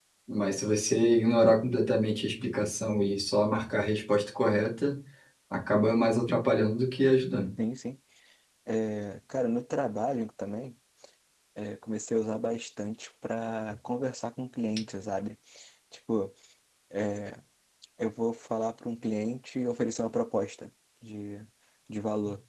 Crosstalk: none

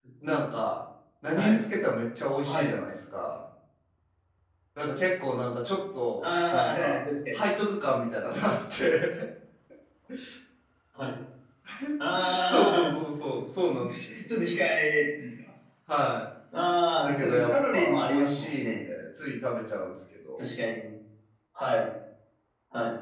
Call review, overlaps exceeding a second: present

